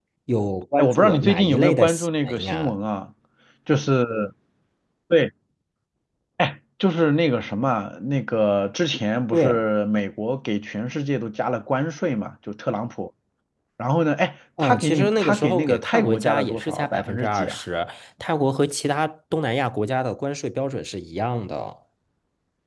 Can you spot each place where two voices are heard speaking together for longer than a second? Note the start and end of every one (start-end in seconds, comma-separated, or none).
0.8-2.7, 14.6-17.6